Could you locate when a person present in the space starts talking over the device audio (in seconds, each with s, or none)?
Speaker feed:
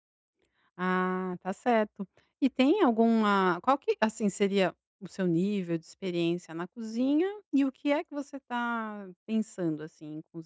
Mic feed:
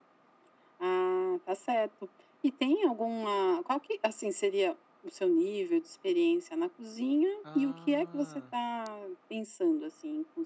7.4 s